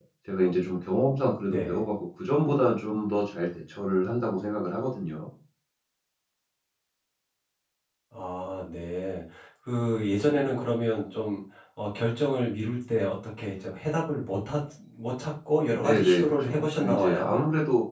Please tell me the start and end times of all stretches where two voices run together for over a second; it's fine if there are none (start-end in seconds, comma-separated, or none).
15.7-17.3